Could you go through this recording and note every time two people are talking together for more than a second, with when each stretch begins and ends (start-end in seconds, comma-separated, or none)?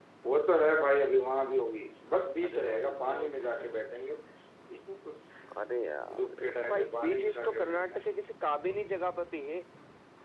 2.5-3.7, 6.2-8.0